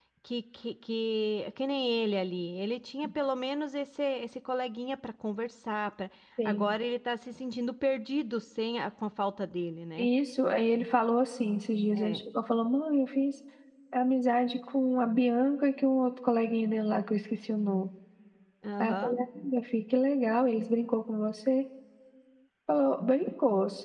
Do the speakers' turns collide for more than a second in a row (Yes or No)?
No